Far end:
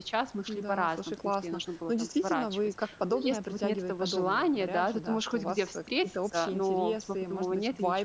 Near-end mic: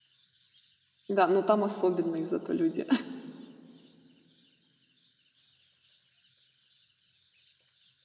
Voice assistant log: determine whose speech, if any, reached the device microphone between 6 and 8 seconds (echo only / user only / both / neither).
neither